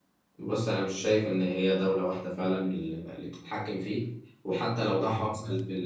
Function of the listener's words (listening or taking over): listening